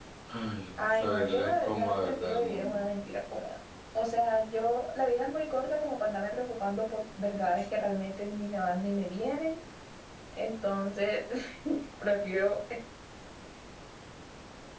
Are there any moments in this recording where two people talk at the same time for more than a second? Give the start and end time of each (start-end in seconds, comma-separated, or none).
0.9-2.8